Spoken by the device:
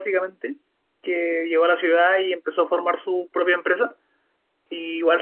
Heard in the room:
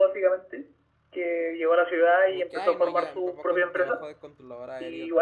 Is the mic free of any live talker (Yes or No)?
No